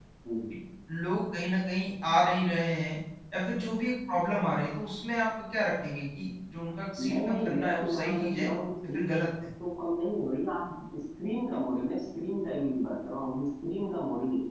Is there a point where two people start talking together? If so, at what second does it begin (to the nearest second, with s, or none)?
7 s